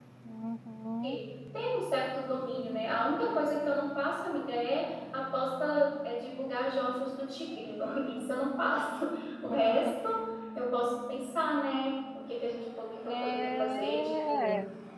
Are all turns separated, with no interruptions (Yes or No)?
No